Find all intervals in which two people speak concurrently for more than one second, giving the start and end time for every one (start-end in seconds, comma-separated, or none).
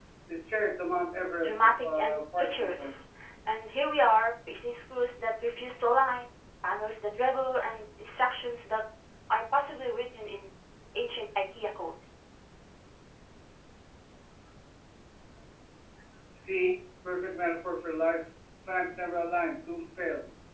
1.4-2.9